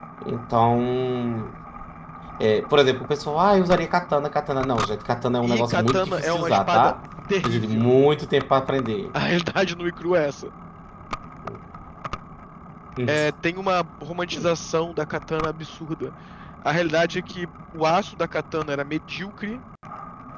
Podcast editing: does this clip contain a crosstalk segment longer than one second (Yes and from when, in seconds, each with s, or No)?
Yes, from 5.4 s